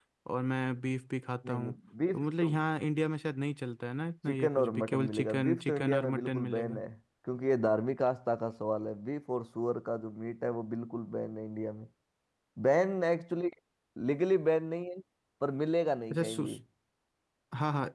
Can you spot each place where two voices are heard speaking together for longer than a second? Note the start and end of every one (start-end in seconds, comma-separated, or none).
4.3-6.8